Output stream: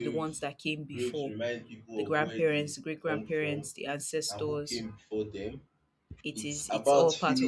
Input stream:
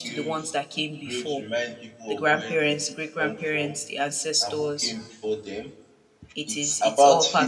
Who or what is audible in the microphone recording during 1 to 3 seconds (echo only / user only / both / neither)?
echo only